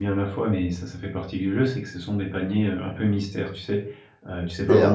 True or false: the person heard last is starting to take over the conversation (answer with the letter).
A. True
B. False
A